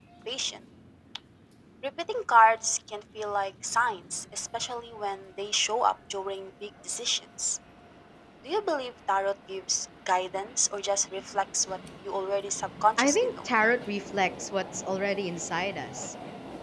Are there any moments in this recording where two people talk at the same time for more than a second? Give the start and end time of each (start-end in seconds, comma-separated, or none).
none